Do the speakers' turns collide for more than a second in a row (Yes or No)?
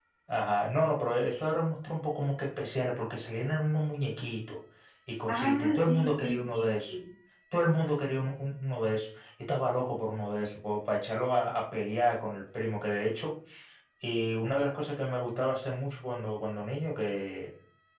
Yes